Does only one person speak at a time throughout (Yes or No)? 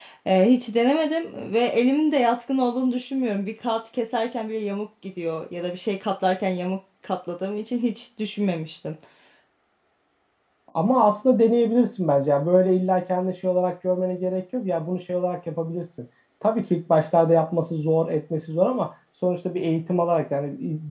Yes